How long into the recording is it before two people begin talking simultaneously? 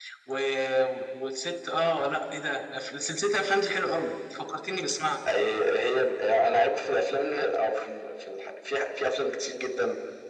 none

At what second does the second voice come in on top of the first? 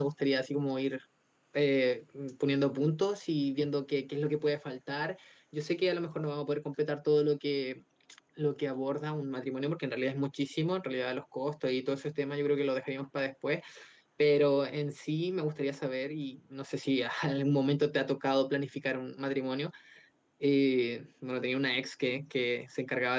none

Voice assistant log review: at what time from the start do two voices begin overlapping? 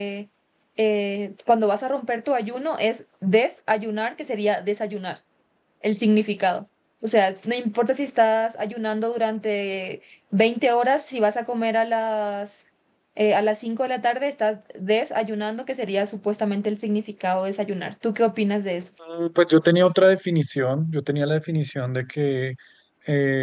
none

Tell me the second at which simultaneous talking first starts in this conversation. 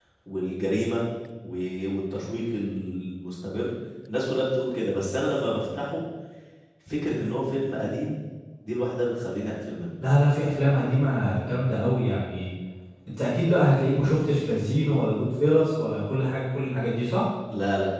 none

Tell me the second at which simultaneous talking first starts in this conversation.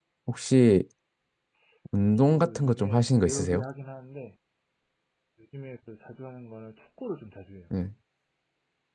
2 s

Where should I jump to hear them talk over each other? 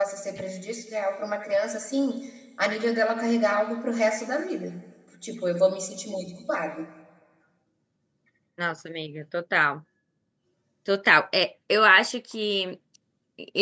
none

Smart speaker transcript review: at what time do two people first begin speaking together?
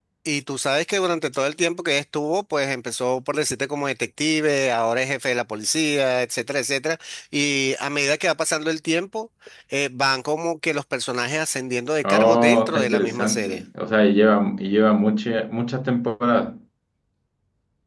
12 s

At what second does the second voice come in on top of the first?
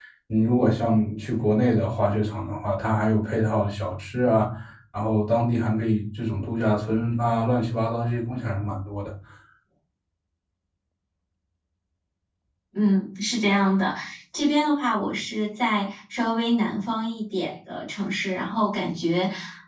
none

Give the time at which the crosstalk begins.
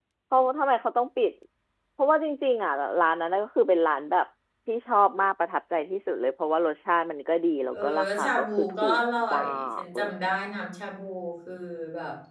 8 s

